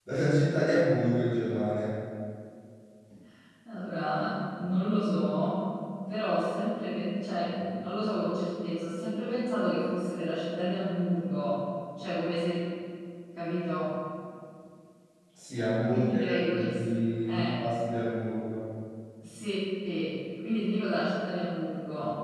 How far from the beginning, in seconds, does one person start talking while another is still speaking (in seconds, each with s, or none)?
15.9 s